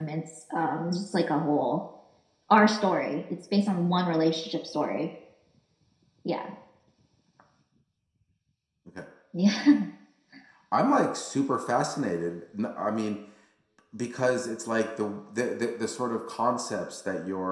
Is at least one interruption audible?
No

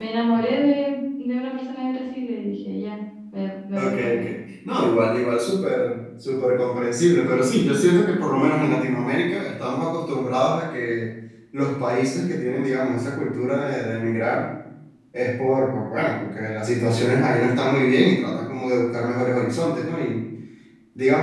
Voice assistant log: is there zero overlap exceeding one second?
Yes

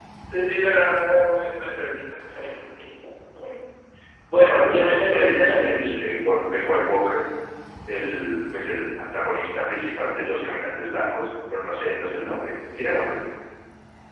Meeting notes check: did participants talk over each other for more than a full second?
Yes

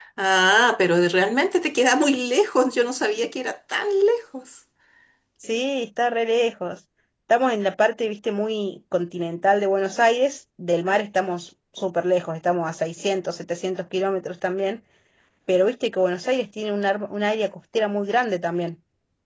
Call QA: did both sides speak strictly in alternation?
Yes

